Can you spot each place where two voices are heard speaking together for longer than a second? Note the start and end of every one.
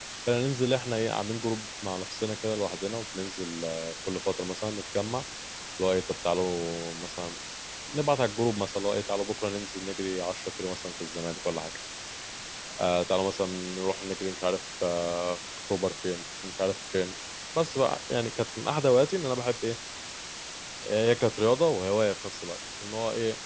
none

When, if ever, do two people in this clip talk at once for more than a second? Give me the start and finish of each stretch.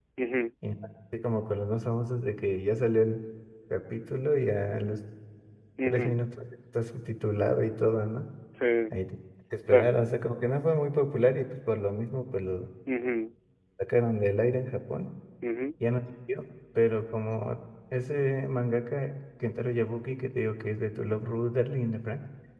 none

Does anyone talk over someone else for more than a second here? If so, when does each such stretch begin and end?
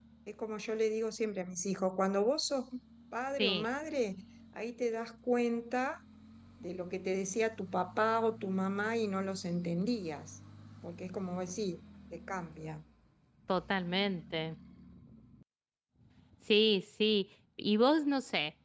none

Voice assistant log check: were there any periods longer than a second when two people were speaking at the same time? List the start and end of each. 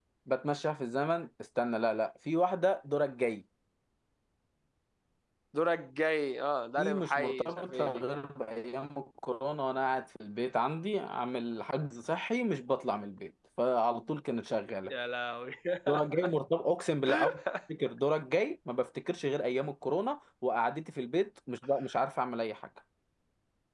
6.8-8.0

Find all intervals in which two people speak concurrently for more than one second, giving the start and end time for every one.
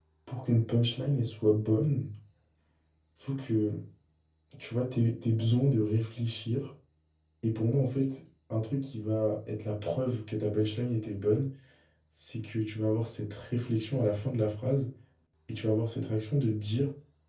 none

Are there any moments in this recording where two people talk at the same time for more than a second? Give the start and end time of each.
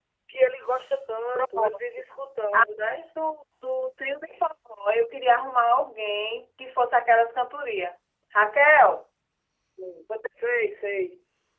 none

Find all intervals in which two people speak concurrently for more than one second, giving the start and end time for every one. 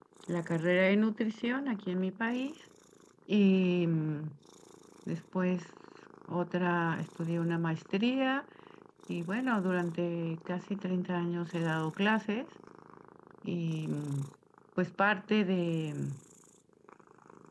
none

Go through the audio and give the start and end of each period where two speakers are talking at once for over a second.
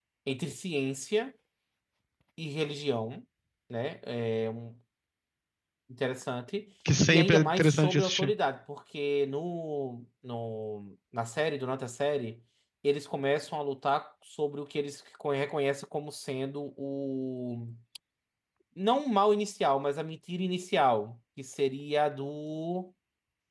7.1-8.3

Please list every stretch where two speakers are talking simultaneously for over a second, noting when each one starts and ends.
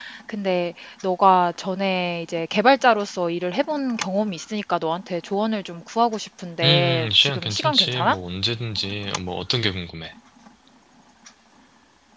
6.6-8.2

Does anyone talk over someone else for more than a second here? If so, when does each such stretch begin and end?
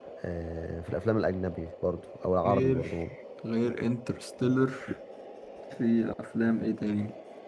none

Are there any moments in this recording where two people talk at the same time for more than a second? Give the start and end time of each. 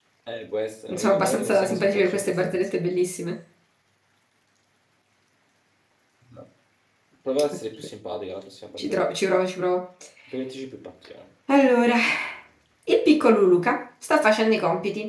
0.9-2.7

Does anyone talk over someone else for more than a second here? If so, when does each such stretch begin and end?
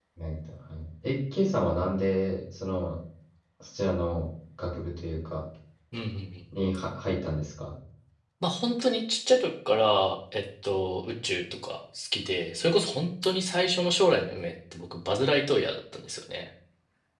none

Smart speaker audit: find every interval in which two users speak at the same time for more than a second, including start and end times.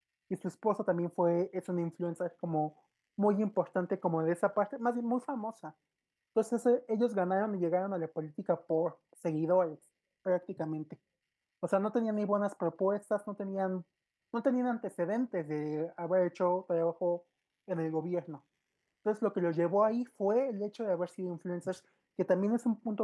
none

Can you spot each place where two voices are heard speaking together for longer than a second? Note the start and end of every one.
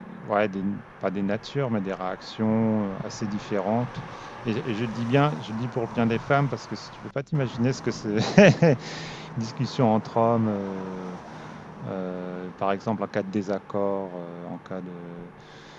none

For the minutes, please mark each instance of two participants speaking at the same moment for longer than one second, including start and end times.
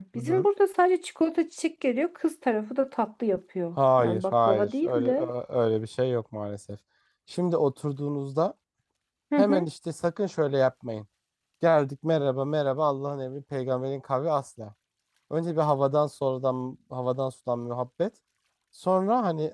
4.0-5.3

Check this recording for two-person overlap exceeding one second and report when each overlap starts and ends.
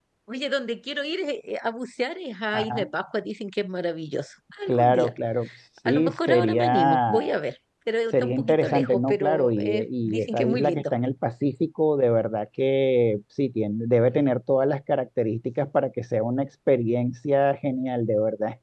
5.8-7.1, 8.2-10.8

